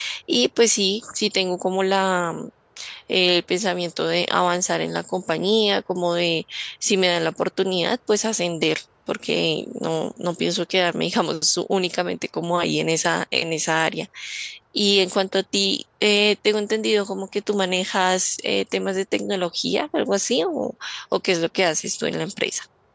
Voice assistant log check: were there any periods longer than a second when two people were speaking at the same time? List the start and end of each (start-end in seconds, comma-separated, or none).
none